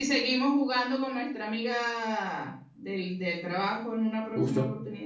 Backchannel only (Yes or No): No